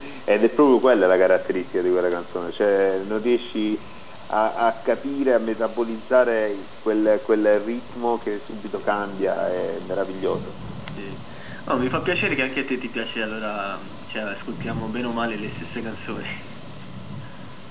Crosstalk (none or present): none